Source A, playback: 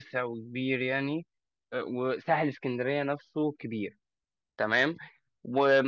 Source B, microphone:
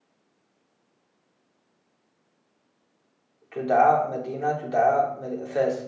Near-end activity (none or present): present